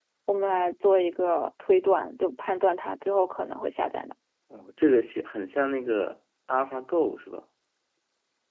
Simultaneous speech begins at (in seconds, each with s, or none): none